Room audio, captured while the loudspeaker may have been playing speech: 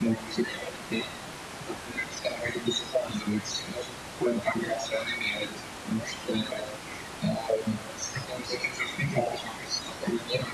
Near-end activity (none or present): none